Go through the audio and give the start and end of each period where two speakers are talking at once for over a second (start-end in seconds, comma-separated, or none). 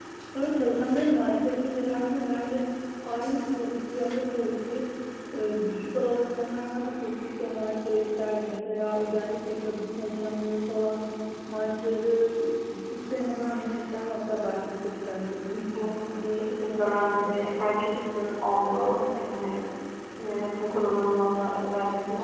16.1-17.4